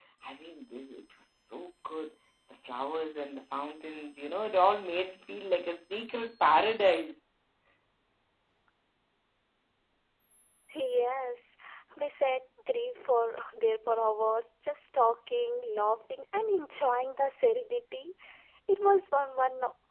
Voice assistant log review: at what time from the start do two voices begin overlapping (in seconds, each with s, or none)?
none